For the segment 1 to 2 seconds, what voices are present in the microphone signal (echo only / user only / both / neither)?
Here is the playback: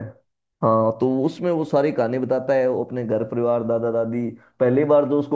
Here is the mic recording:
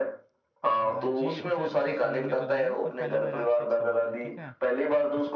both